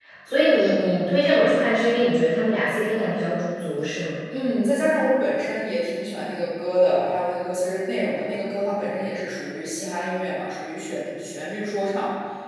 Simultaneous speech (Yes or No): No